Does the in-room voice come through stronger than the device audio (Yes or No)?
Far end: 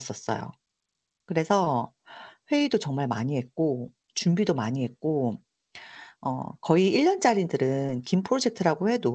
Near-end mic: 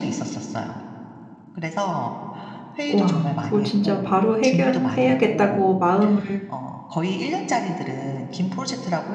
Yes